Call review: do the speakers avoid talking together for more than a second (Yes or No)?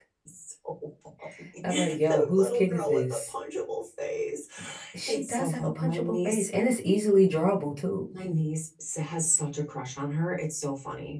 No